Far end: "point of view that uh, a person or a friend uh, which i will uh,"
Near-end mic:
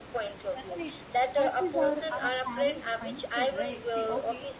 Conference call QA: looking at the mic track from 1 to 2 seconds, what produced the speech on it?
both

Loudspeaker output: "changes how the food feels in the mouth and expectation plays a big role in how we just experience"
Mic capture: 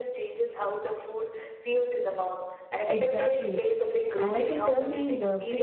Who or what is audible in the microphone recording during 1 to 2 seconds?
echo only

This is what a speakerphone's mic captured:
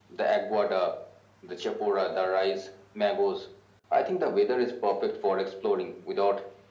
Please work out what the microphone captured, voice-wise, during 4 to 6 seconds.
echo only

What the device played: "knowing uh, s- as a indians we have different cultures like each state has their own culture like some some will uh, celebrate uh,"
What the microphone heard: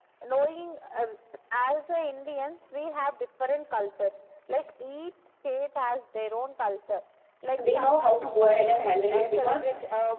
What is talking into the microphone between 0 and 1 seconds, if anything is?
echo only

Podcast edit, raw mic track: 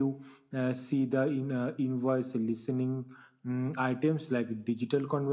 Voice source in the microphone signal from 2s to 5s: echo only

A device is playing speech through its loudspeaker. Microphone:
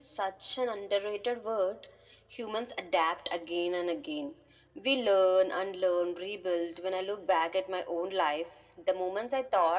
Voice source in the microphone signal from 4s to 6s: echo only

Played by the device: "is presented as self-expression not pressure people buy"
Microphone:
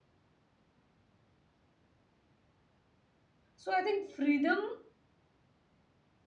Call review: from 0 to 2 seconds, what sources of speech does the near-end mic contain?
neither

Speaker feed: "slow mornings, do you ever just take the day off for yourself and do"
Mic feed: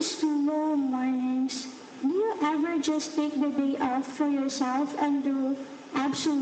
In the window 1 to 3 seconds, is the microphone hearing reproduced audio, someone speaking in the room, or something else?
echo only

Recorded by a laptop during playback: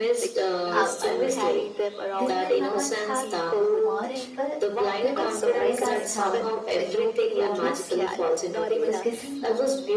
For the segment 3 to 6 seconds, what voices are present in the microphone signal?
both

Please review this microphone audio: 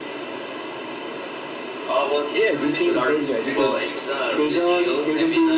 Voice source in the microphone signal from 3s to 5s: both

